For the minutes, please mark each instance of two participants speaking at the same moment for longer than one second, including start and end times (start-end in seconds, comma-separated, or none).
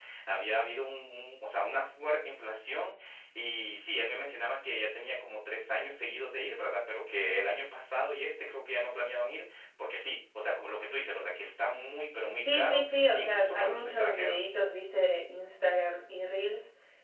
12.4-14.5